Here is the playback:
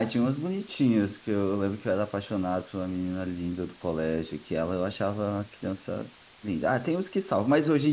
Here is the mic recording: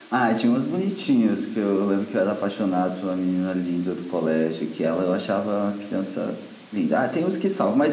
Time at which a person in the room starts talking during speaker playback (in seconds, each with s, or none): none